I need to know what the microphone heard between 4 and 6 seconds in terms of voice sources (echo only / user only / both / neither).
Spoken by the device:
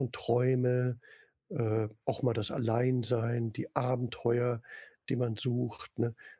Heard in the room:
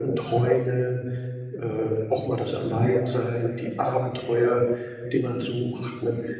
echo only